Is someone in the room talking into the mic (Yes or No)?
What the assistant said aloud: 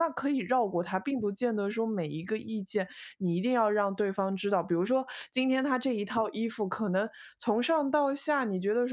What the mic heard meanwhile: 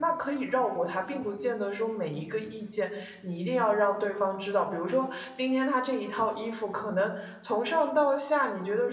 No